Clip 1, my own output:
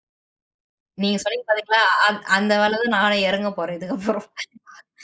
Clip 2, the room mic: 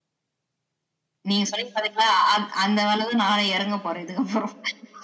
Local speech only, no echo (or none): none